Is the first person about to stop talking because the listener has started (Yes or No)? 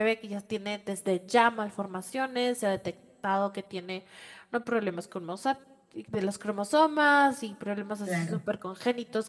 No